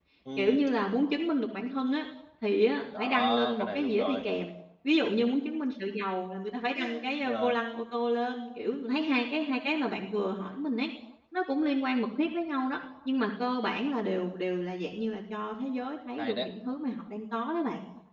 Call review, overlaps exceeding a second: present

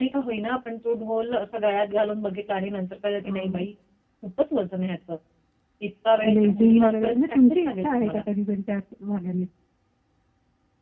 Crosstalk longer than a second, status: present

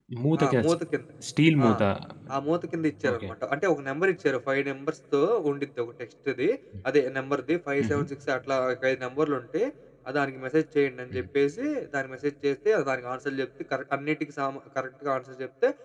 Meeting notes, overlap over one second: none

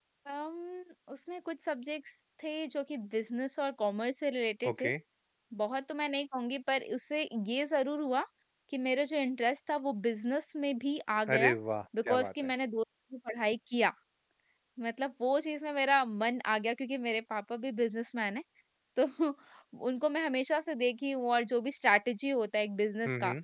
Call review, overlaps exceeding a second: none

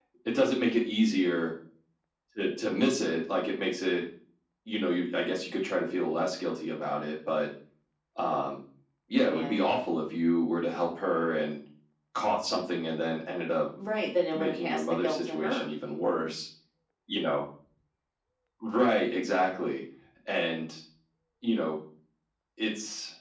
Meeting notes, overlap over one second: present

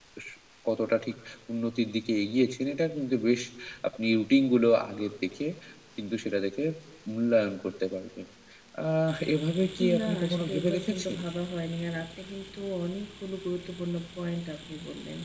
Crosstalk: present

